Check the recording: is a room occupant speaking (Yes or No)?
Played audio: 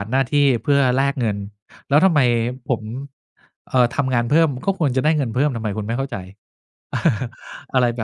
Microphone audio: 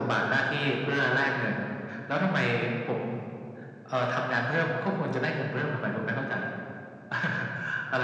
No